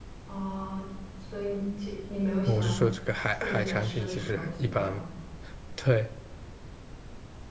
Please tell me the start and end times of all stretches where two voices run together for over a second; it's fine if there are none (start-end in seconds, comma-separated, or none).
3.3-5.0